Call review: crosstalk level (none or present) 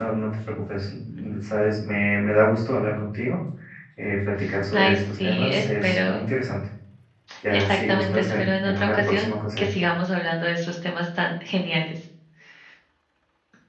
present